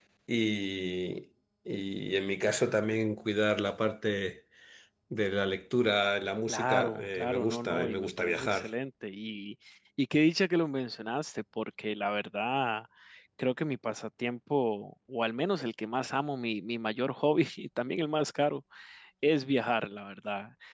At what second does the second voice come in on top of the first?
6.5 s

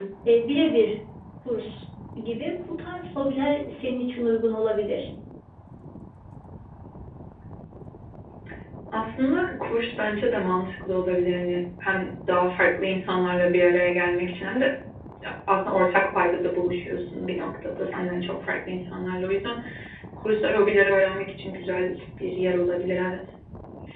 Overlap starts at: none

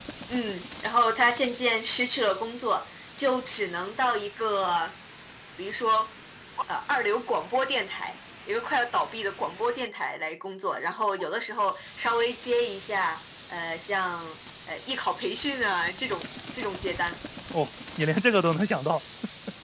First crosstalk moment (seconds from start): none

